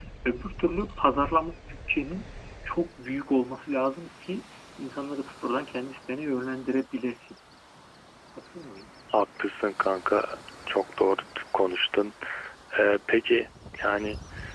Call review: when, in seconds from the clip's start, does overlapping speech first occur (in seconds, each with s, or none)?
none